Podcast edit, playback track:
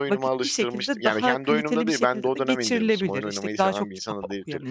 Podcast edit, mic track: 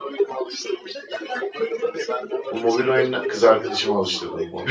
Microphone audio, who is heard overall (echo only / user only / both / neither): both